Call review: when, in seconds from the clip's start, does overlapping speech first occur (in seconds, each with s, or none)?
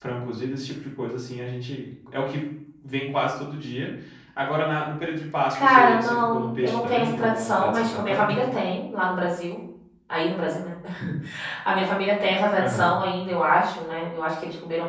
5.5 s